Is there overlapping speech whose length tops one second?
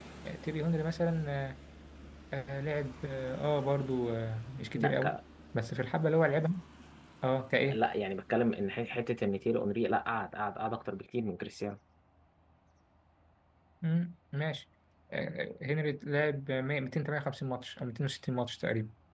No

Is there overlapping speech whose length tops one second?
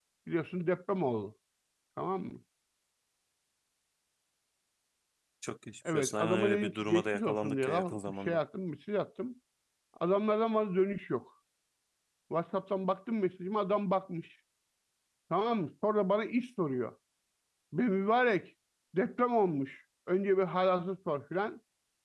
Yes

